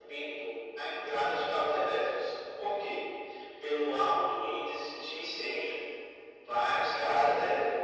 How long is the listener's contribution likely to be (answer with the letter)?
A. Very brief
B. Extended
A